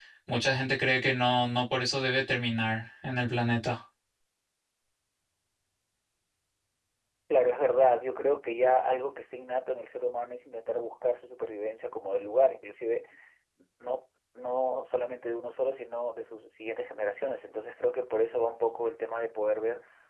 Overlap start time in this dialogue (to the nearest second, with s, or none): none